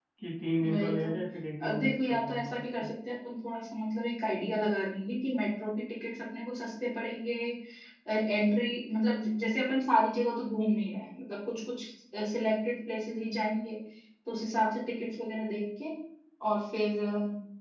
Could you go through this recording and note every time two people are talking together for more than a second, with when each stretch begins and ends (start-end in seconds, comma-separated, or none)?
1.7-2.9